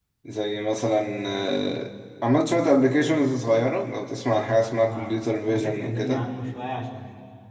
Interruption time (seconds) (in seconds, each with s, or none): 4.3 s